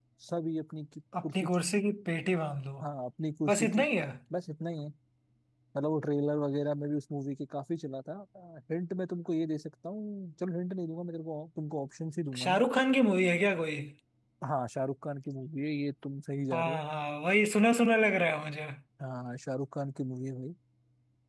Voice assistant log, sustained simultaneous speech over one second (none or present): none